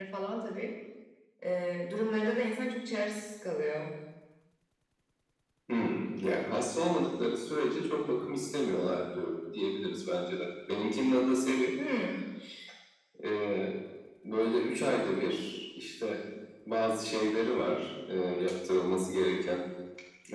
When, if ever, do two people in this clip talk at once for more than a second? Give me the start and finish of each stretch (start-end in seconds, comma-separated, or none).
none